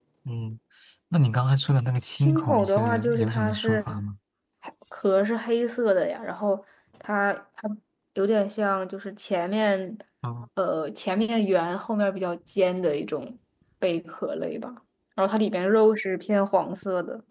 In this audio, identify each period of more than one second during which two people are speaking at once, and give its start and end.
2.1-4.0

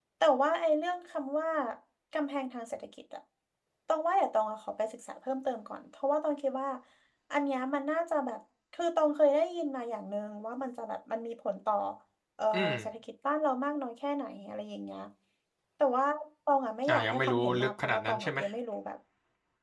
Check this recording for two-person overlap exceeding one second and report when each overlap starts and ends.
16.9-18.4

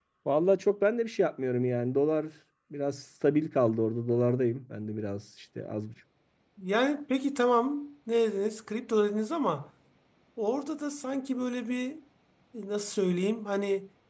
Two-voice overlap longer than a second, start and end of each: none

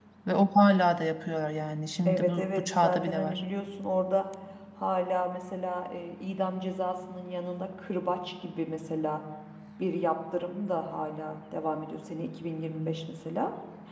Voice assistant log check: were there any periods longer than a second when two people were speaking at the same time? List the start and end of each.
2.0-3.4

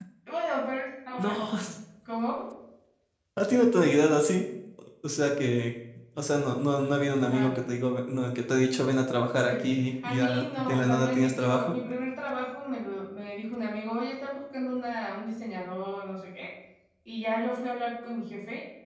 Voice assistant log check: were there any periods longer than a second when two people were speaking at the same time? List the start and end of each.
9.4-11.8

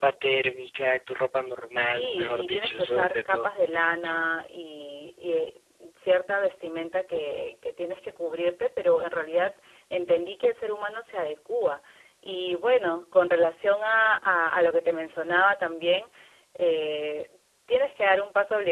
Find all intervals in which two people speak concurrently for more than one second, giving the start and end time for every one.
1.8-3.5

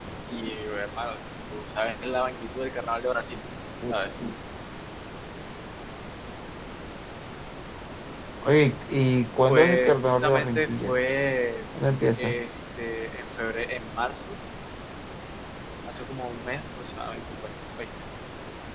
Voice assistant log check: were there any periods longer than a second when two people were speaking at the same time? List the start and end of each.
9.5-11.0

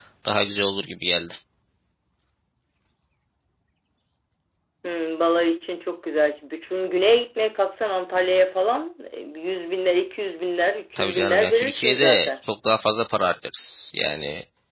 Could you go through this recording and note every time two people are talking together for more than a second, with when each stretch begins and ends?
11.0-12.3

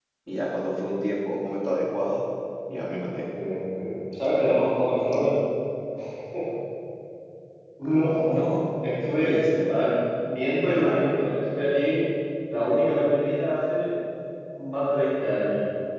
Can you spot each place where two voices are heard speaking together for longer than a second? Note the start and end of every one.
none

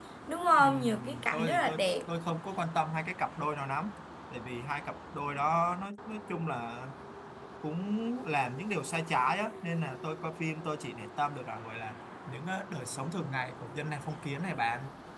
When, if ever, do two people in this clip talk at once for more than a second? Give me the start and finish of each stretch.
0.6-1.9

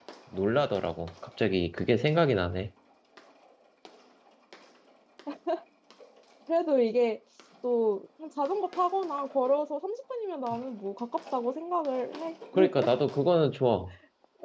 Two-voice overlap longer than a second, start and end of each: none

